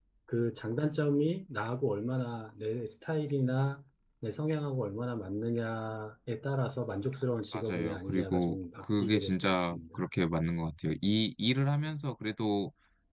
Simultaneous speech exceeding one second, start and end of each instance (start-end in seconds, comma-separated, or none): 7.5-10.0